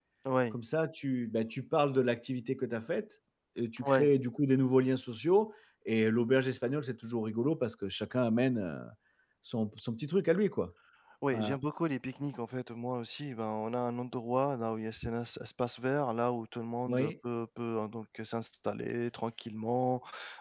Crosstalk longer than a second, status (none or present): none